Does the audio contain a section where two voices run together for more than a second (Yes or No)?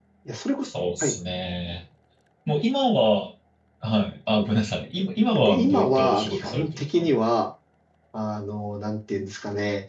Yes